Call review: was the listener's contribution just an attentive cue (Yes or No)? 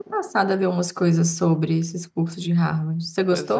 No